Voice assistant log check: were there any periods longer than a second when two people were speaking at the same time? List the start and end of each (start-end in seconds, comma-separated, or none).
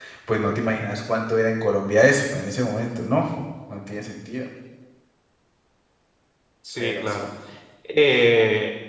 none